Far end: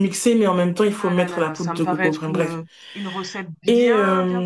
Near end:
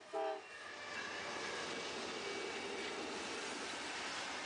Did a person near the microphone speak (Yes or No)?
No